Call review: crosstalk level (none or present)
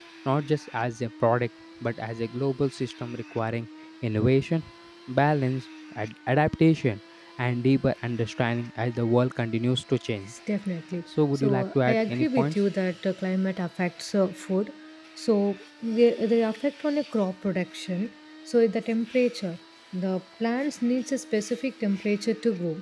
present